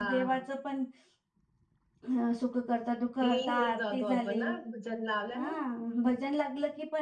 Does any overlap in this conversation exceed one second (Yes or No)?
Yes